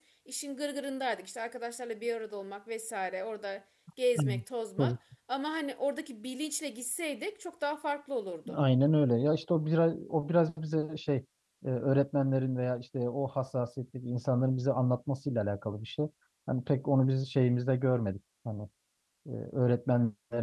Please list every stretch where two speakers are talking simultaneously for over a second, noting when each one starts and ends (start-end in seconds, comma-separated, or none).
none